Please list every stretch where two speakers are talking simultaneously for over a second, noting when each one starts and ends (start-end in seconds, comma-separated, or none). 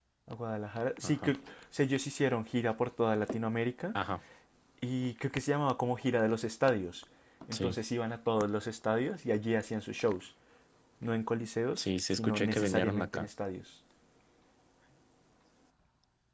11.8-13.3